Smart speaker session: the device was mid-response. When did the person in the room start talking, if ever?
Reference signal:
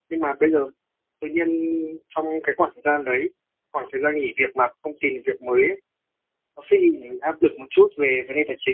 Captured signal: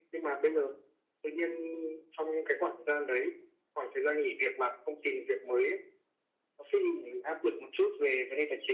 none

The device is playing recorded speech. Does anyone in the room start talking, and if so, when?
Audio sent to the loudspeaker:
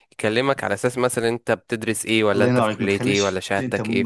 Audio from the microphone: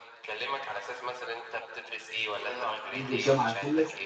3 s

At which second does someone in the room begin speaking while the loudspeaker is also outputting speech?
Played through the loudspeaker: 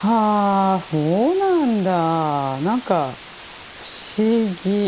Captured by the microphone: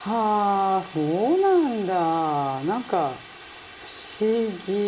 none

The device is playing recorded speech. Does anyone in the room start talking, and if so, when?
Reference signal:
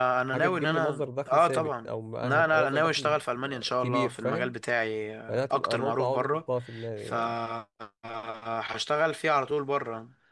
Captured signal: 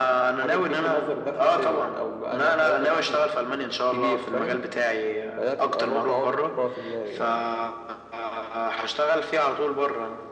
none

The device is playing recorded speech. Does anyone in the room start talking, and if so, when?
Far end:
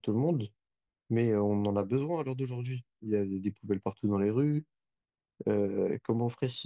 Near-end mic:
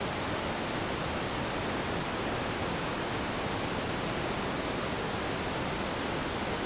none

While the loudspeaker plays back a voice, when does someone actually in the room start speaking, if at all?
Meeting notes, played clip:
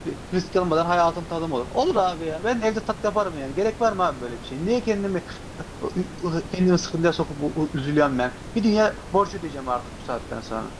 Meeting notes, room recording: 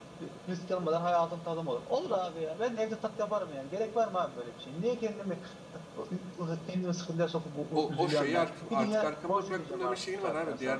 8 s

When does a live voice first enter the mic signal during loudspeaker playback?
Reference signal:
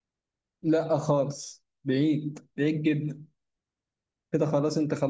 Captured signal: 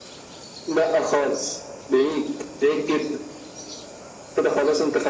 none

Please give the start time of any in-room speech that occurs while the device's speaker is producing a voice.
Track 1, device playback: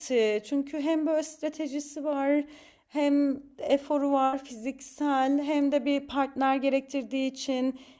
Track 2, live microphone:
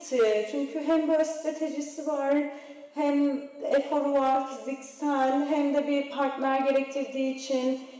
none

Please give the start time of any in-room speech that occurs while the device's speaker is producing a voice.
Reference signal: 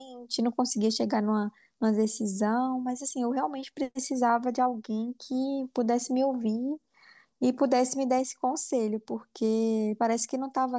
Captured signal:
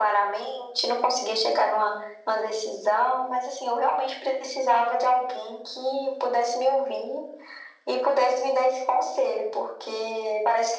none

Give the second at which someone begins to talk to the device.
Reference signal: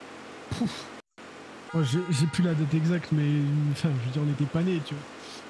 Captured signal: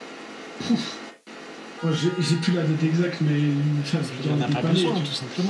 4 s

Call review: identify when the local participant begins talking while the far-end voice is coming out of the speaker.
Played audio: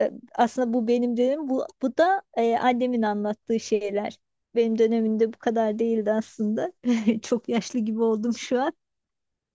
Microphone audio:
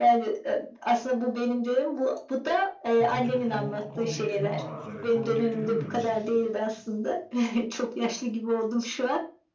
3 s

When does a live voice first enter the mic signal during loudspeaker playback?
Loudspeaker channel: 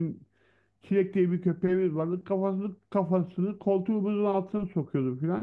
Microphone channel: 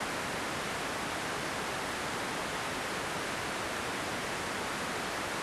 none

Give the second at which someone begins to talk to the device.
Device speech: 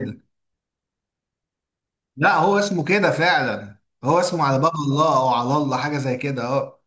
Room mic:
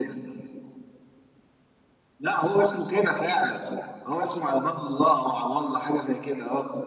none

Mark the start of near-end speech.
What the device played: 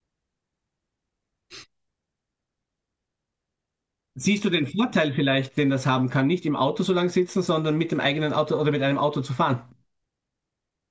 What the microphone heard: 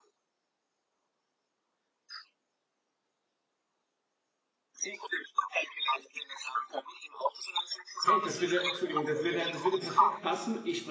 8 s

